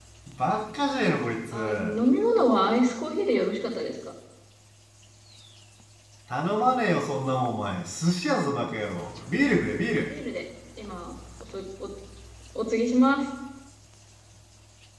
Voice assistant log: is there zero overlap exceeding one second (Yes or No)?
Yes